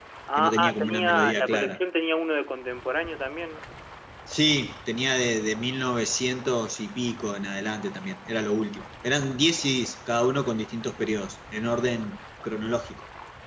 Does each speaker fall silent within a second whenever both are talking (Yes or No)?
No